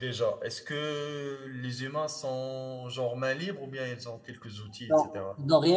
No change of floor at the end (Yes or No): No